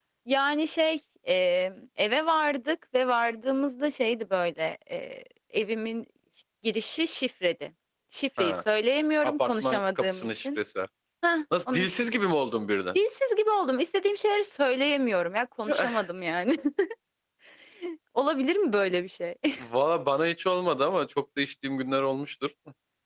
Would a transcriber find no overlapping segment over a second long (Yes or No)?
No